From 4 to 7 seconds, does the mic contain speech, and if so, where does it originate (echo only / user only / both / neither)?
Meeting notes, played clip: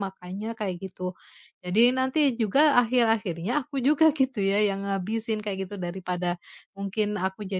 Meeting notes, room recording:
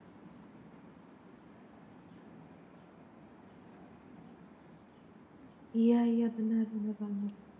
user only